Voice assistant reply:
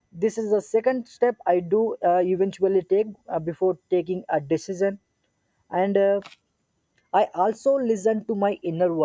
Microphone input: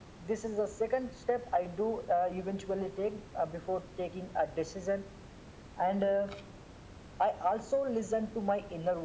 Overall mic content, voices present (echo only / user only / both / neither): echo only